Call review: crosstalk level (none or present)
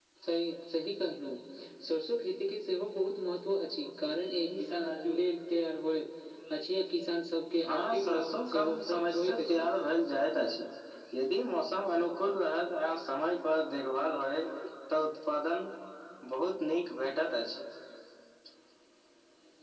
present